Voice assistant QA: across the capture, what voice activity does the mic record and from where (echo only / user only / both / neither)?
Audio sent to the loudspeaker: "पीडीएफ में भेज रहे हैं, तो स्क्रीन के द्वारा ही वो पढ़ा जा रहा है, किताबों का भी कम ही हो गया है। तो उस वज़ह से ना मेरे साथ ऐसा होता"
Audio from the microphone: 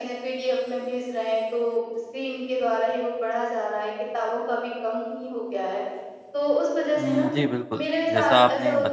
both